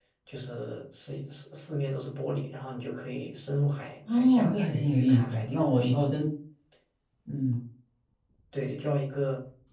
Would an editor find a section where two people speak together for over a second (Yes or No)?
Yes